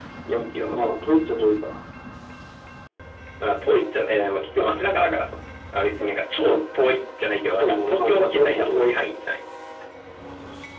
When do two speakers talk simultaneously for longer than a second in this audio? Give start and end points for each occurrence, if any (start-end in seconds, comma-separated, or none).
7.6-8.9